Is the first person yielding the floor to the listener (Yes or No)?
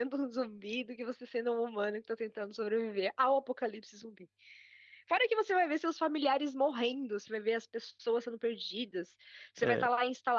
No